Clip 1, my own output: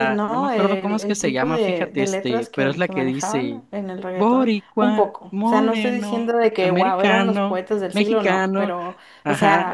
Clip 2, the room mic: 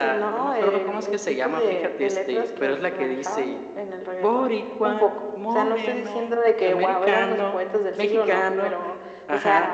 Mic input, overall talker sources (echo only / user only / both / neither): echo only